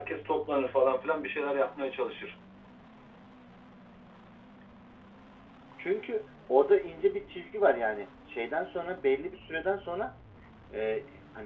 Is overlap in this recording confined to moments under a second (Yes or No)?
Yes